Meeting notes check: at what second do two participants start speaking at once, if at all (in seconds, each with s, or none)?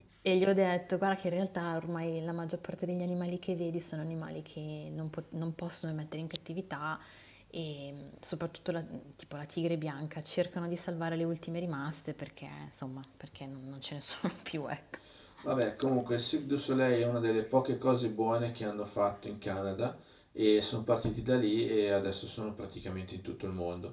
none